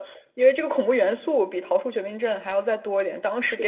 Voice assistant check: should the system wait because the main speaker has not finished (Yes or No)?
Yes